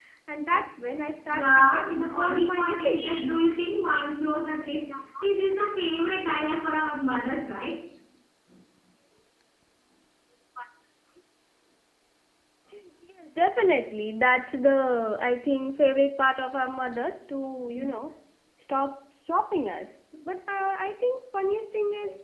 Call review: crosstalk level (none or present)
present